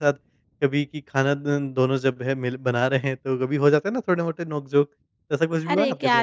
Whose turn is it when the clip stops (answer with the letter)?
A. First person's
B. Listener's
B